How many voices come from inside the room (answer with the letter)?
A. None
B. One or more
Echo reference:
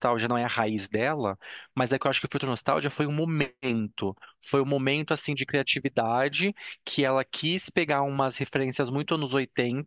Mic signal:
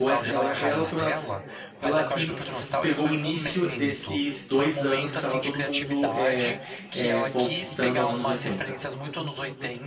B